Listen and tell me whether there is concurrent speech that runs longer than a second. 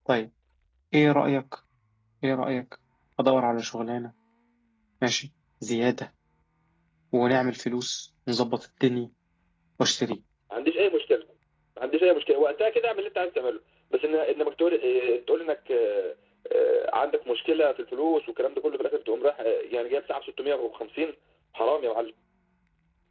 No

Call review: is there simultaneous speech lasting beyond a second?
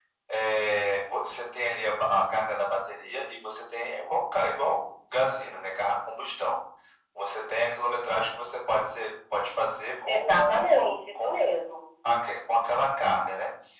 Yes, from 10.0 s

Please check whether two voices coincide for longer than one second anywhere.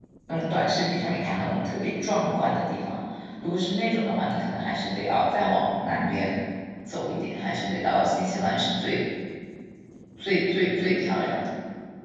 No

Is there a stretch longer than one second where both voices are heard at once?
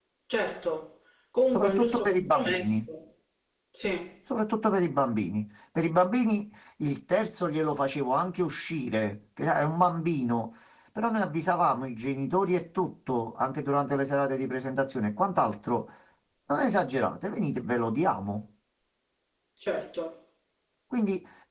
Yes, from 1.5 s

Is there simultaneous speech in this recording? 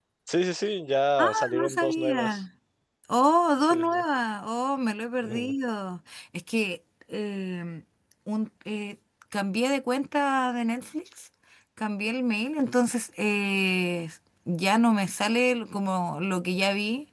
Yes, from 1.2 s

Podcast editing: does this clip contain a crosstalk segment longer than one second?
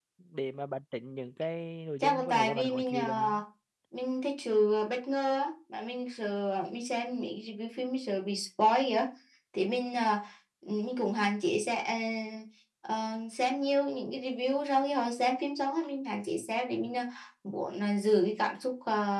Yes, from 2.0 s

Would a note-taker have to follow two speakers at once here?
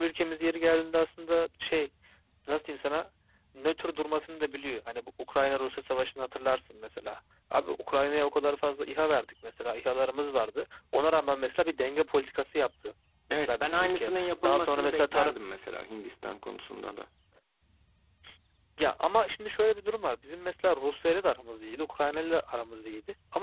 Yes, from 13.3 s

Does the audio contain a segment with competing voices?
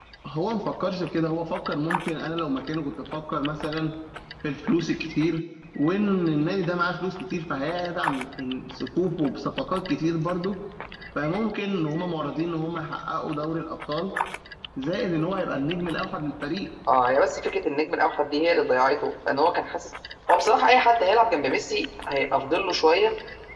No

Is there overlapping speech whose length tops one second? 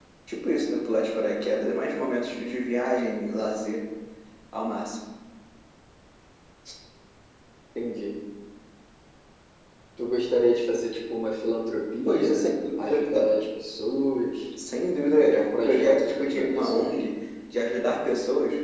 Yes, from 12.0 s

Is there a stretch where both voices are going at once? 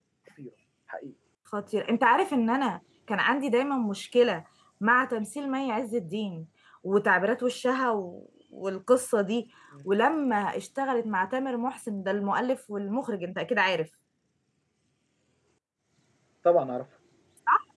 No

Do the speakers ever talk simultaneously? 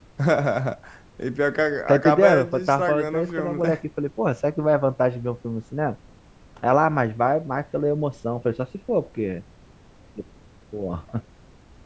Yes, from 1.9 s

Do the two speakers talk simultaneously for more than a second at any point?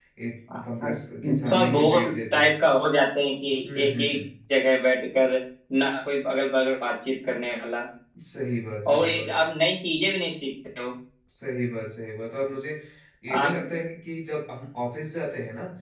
Yes, from 1.2 s

